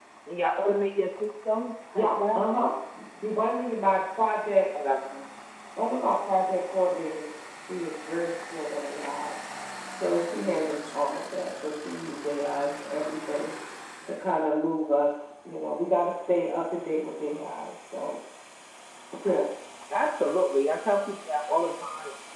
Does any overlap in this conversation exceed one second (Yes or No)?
No